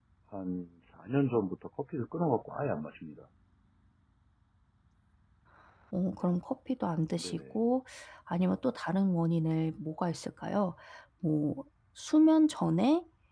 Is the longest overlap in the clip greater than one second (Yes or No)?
No